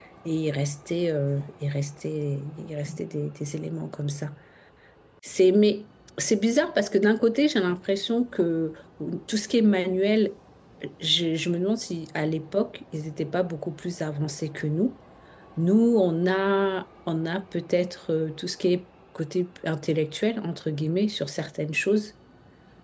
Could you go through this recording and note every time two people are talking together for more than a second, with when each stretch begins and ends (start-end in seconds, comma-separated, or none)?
none